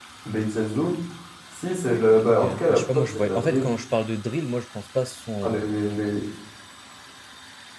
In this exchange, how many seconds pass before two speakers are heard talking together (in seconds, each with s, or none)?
2.2 s